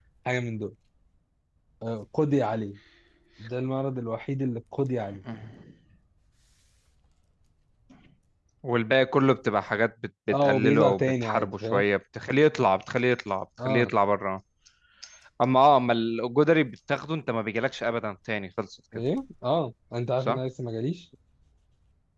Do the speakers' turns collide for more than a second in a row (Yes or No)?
Yes